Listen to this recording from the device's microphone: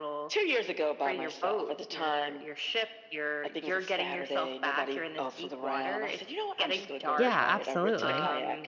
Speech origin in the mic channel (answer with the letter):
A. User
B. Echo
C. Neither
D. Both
D